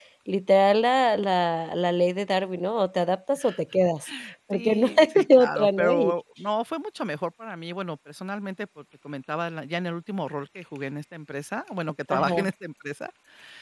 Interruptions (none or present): present